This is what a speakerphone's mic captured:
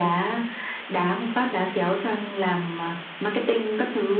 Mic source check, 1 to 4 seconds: echo only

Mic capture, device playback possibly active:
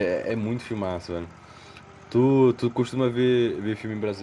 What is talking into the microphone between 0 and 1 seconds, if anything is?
user only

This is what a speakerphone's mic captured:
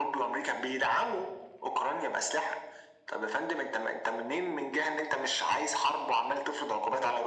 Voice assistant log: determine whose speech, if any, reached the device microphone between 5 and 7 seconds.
echo only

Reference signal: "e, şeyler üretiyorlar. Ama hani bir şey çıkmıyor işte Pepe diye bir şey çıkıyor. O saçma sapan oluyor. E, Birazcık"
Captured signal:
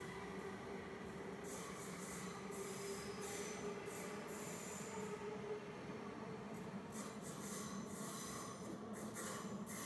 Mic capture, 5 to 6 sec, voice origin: neither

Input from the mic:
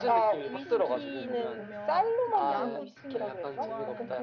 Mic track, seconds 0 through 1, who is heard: both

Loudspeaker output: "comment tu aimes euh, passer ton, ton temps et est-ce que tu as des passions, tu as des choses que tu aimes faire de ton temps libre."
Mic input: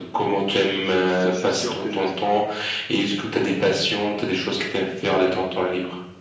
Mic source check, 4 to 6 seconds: echo only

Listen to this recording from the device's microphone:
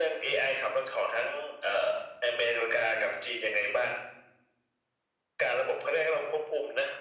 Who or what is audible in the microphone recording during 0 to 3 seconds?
echo only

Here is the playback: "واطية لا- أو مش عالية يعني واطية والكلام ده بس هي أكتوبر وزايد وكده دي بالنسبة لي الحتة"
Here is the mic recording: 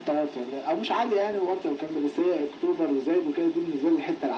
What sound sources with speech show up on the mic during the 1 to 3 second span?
echo only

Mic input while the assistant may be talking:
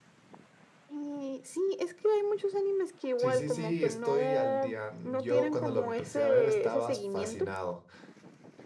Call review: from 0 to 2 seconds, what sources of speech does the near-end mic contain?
echo only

